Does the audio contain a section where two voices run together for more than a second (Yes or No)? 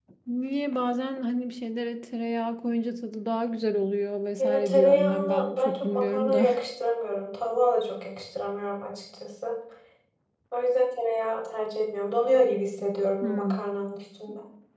Yes